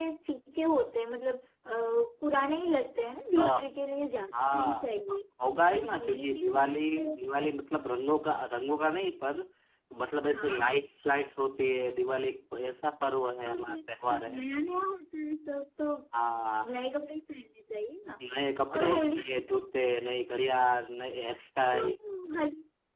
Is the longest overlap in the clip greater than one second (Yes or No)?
Yes